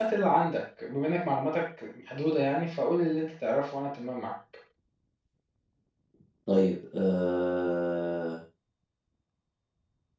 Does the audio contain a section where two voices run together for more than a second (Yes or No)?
No